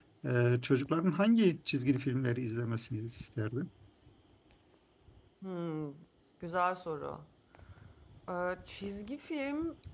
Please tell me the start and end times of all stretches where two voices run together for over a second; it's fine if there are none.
none

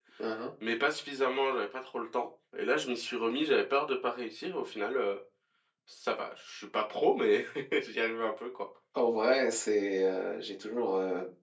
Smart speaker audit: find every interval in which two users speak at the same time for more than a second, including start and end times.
none

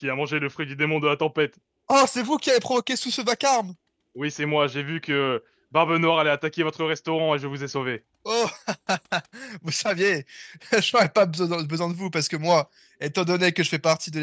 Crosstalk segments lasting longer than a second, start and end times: none

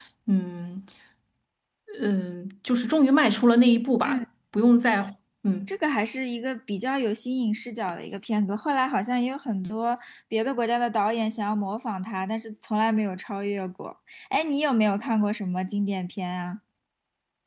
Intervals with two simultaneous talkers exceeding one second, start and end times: none

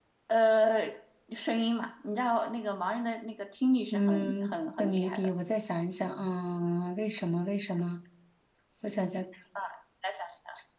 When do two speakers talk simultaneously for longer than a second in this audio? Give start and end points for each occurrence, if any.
3.9-5.3

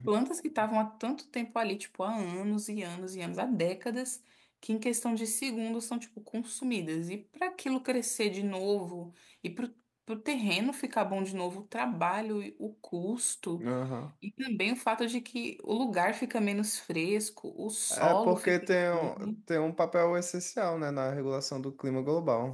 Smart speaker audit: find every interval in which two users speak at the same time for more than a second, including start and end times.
17.9-19.3

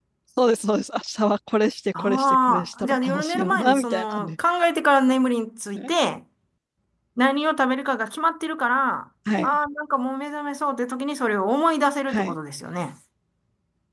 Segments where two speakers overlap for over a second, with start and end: 2.0-4.3

